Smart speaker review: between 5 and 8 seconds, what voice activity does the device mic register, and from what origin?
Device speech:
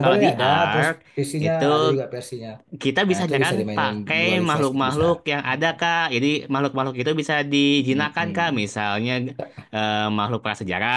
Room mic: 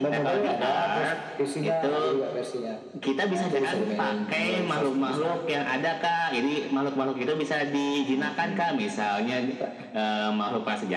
echo only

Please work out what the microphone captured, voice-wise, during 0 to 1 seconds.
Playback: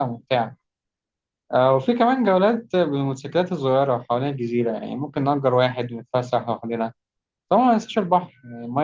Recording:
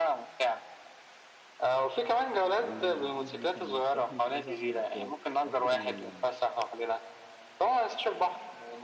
echo only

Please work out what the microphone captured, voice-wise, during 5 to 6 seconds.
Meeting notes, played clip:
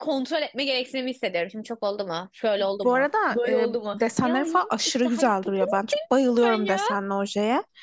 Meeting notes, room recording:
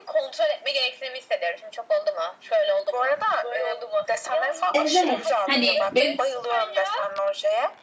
both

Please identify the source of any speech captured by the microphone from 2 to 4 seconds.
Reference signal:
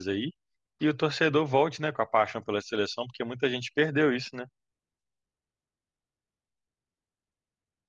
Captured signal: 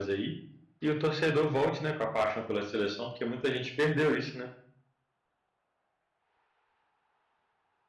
echo only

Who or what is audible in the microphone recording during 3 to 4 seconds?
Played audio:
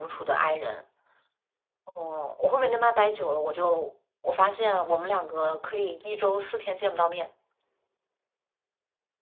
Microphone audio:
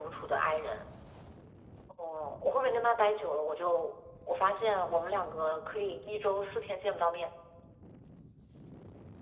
echo only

